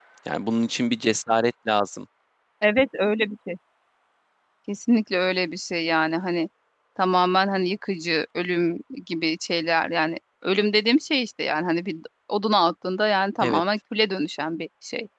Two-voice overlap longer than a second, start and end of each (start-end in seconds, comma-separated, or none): none